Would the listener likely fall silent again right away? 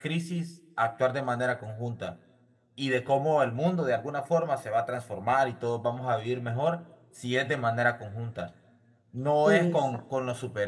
Yes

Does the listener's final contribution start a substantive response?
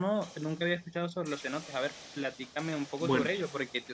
No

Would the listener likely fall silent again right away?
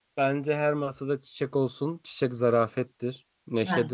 Yes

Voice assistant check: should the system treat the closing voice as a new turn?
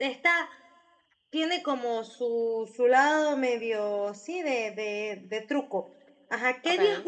No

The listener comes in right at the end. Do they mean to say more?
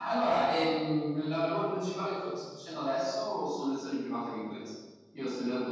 No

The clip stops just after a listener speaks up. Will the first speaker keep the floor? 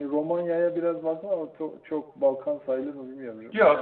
No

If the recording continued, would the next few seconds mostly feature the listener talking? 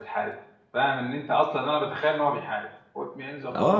Yes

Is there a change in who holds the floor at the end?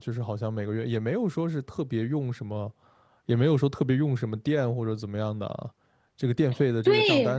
No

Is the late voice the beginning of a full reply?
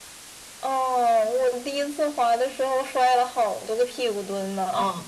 Yes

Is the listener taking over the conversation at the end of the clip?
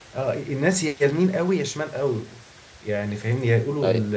No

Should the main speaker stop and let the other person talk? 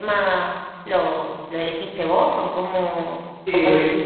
Yes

